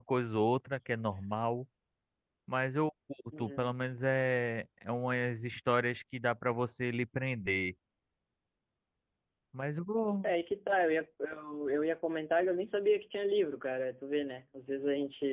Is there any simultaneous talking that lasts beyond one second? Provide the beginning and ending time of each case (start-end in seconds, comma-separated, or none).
none